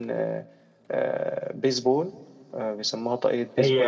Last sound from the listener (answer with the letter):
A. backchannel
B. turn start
B